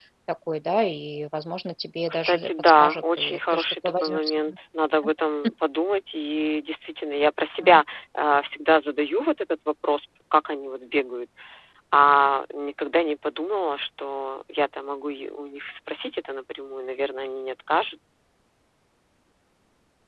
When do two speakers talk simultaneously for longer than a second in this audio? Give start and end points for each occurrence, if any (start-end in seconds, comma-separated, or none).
2.1-4.5